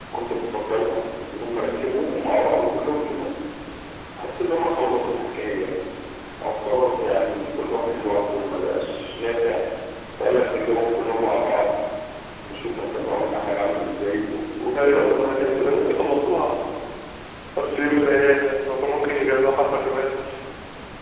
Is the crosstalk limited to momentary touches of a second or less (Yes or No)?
No